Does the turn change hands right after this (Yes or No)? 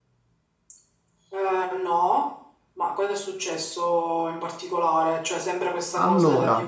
No